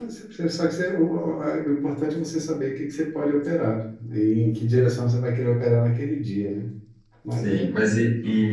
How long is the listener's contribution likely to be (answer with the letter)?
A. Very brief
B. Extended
B